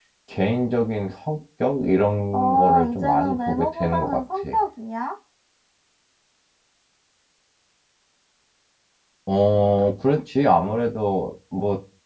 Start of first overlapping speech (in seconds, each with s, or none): 2.3 s